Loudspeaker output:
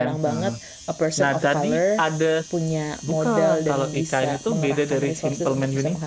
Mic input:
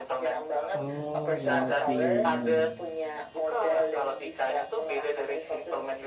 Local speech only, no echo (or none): Oh, Monkey Man.